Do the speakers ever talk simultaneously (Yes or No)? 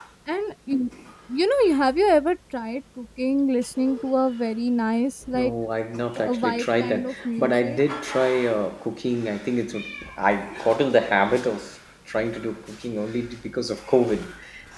Yes